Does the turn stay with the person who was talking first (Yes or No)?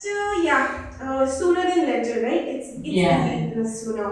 Yes